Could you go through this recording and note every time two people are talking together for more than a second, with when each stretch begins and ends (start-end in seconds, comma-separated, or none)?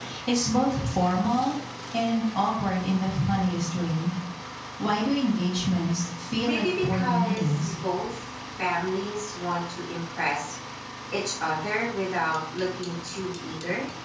6.4-7.7